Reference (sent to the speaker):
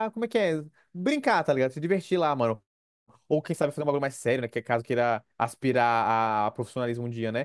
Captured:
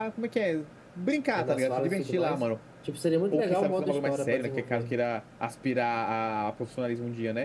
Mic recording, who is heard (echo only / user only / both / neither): both